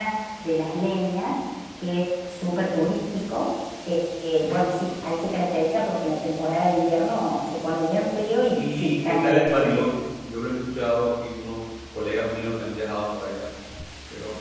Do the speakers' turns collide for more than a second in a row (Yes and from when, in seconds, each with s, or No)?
Yes, from 8.5 s